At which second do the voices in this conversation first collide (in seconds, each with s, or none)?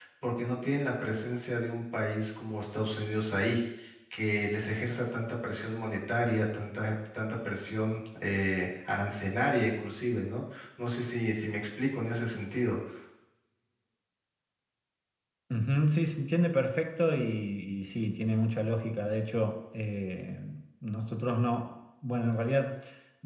none